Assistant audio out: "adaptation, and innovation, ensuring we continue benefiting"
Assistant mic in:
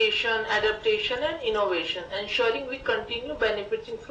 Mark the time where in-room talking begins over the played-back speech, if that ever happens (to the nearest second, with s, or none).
none